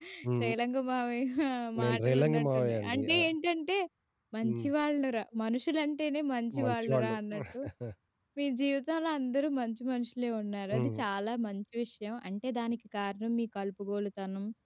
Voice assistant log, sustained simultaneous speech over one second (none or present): present